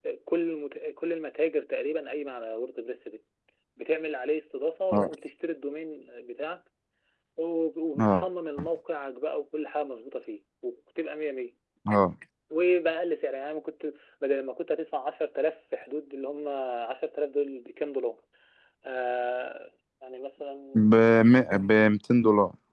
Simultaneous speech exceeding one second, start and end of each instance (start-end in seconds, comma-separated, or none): none